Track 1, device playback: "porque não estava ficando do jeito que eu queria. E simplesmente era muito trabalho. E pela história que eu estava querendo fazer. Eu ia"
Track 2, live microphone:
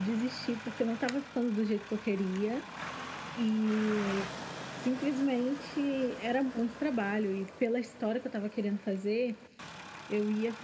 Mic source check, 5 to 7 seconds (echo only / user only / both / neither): echo only